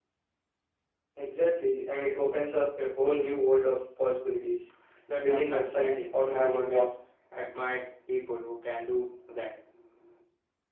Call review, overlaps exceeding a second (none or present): present